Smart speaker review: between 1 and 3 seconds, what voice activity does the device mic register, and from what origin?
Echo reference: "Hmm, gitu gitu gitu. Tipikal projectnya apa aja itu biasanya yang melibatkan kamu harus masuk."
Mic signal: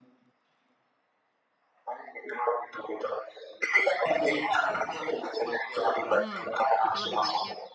echo only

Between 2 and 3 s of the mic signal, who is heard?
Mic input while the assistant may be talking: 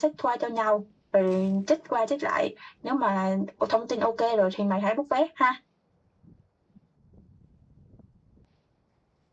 echo only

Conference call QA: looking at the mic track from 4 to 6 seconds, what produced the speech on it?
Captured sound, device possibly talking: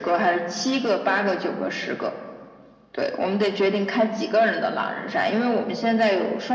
echo only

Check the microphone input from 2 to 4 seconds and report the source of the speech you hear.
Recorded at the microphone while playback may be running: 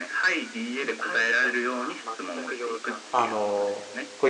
both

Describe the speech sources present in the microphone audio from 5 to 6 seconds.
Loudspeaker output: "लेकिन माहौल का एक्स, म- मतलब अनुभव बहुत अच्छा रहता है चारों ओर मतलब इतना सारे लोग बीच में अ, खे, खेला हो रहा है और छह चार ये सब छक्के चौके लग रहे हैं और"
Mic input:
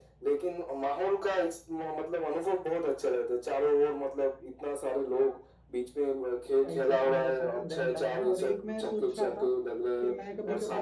echo only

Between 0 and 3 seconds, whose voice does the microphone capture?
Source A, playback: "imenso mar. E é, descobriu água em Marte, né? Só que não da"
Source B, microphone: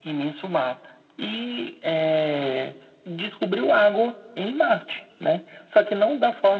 echo only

